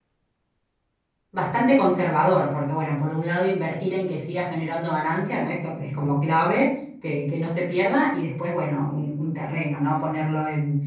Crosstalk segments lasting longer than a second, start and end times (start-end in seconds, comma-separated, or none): none